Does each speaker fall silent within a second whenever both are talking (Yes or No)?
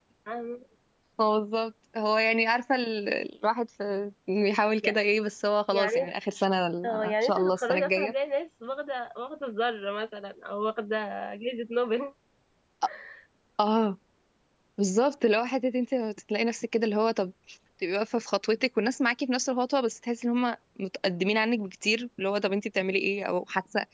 No